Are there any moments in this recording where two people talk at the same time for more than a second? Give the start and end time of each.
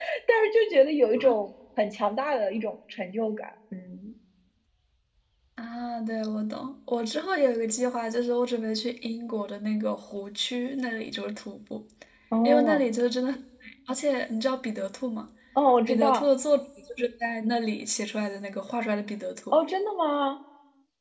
none

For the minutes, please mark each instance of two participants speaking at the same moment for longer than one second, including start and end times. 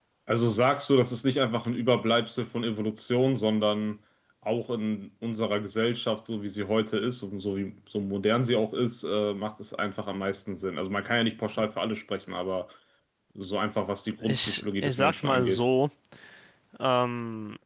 14.2-15.6

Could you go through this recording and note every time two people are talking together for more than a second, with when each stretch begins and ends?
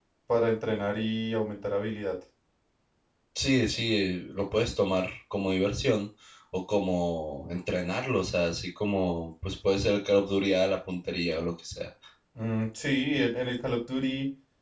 none

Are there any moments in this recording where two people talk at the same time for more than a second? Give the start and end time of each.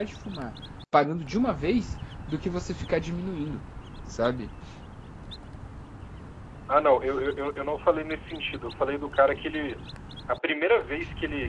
none

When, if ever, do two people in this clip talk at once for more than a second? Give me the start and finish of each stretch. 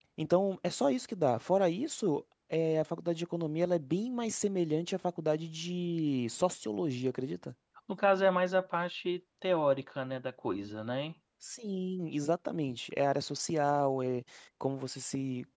none

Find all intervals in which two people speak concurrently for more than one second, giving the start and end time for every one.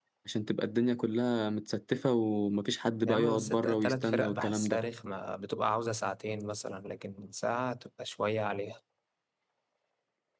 3.0-4.8

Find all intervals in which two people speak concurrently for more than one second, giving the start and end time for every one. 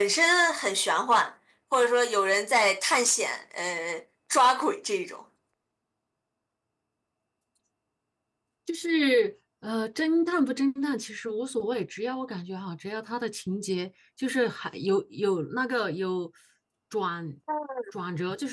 none

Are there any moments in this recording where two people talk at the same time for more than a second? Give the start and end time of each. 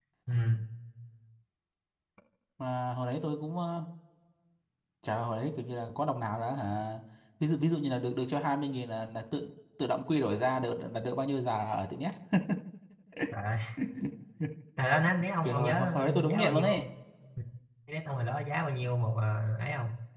15.4-16.8

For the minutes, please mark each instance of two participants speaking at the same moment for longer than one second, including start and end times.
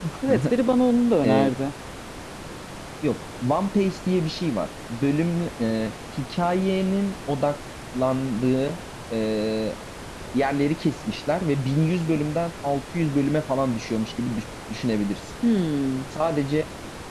none

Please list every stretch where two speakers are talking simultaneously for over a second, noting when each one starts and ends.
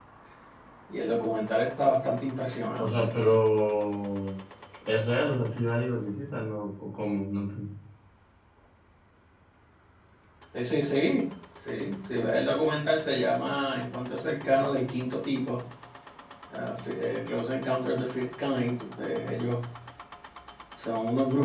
none

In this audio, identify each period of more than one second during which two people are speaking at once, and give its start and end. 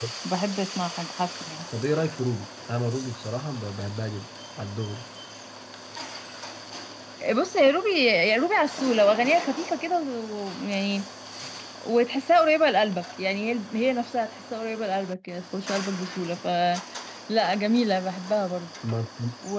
none

